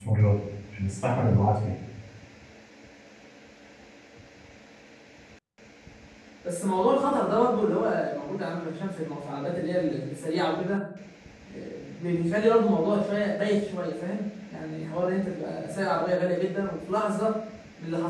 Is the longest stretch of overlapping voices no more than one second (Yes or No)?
Yes